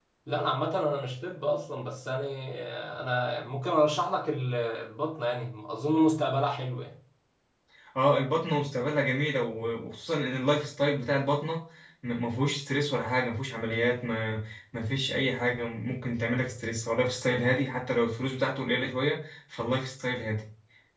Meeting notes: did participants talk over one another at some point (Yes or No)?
No